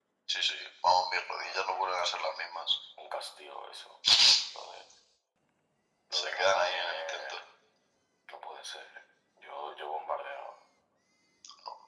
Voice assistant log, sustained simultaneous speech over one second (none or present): present